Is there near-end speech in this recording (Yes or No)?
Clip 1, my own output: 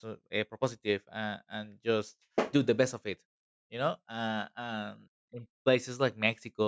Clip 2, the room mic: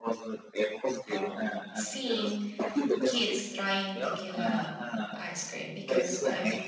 Yes